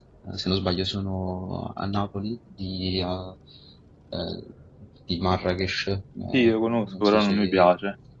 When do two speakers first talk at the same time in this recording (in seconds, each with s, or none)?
6.3 s